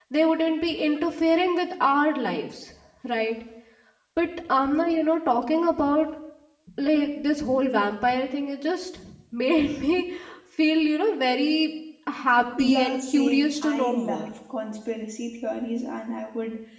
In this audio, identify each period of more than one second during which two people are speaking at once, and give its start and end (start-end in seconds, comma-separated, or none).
12.6-14.2